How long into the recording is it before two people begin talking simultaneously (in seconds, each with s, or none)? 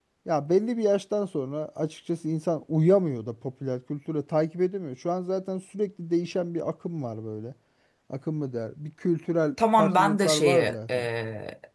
9.6 s